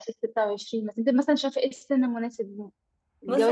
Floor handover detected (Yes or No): Yes